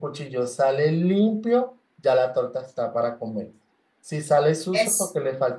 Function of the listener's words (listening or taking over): listening